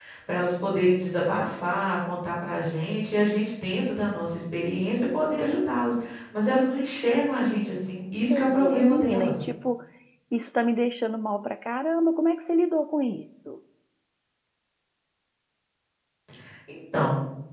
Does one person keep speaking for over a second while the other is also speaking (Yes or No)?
Yes